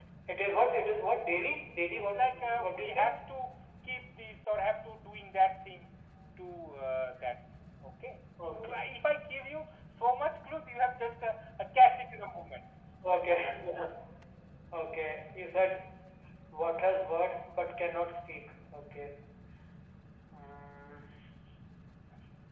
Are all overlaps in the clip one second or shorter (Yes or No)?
No